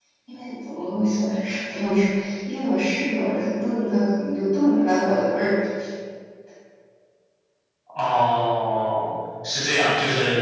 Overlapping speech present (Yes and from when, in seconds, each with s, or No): No